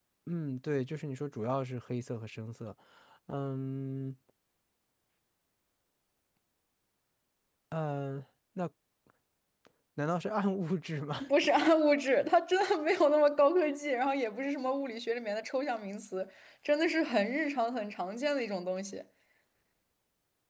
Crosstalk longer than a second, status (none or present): none